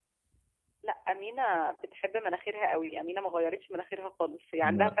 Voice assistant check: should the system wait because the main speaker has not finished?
Yes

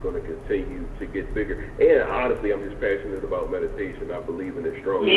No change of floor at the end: No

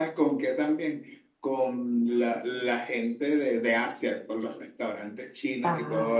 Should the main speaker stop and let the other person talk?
No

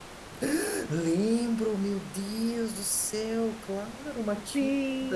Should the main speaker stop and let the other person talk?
Yes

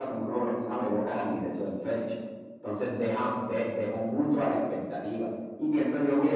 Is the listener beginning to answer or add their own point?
Yes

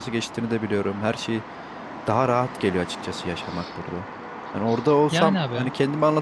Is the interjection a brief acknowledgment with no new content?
Yes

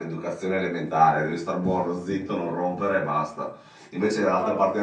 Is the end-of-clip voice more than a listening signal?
No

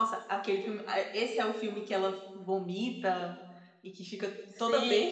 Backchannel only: No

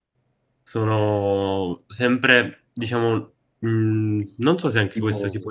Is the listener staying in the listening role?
Yes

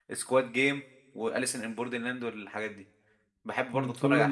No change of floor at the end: No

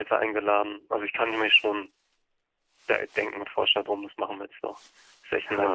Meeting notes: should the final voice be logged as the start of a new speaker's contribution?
Yes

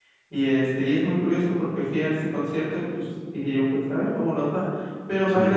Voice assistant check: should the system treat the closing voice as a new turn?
No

